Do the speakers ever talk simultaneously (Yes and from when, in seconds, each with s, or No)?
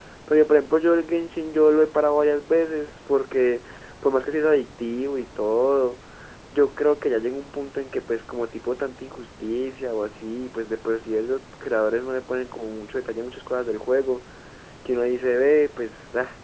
No